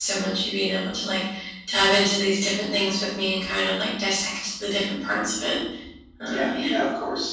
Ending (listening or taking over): taking over